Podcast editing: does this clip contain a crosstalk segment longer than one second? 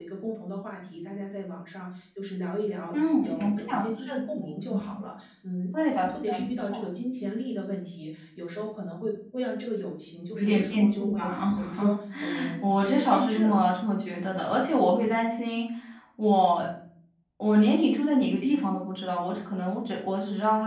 Yes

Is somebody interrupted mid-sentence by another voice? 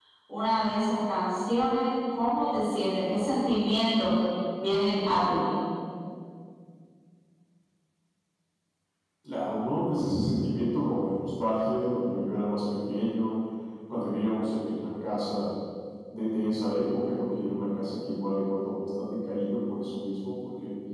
No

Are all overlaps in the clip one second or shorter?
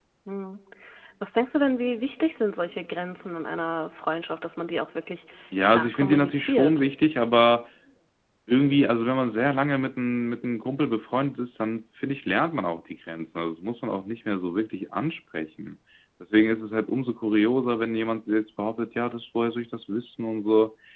No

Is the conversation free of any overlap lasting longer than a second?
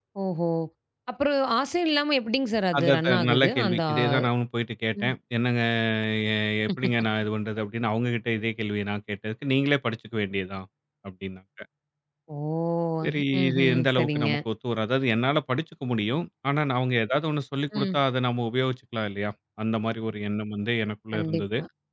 No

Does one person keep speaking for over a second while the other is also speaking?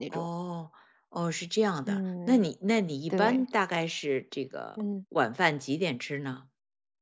No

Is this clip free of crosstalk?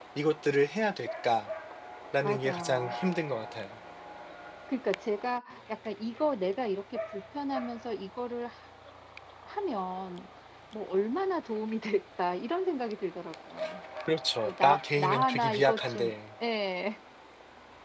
No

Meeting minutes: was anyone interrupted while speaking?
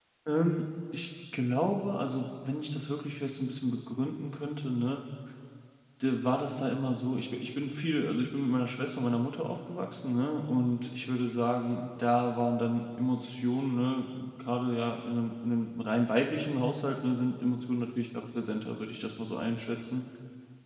No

